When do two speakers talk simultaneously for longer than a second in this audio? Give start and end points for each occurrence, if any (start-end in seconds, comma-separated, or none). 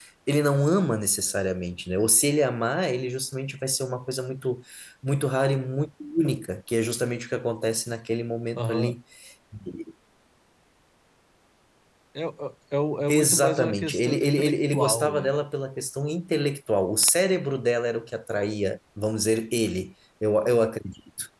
13.1-15.4